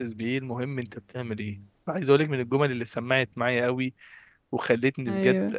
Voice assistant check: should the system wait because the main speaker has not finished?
Yes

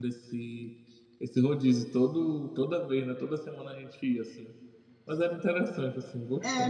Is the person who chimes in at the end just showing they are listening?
No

